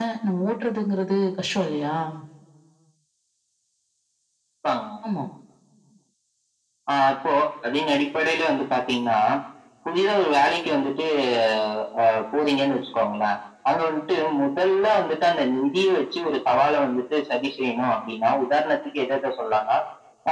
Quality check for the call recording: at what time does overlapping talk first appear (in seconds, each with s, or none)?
none